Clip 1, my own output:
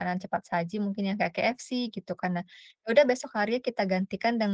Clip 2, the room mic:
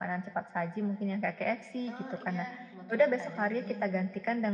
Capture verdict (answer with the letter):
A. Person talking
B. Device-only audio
A